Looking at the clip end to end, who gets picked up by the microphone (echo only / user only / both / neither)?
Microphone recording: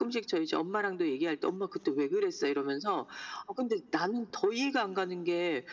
echo only